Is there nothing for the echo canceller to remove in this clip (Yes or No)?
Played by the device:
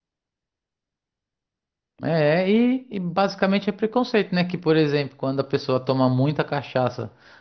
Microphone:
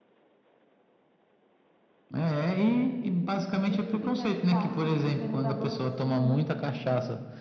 No